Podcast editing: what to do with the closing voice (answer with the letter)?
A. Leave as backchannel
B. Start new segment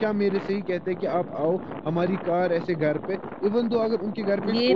B